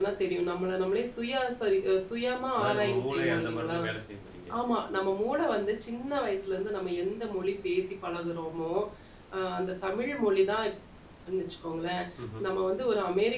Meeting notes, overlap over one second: present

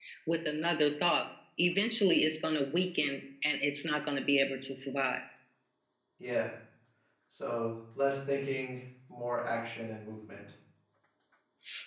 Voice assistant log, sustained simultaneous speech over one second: none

